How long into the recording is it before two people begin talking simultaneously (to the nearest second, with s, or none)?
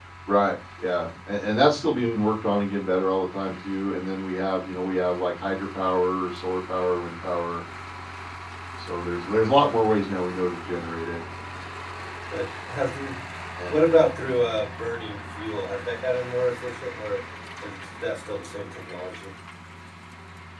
none